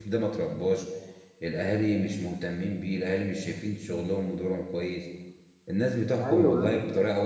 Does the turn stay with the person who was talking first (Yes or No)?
Yes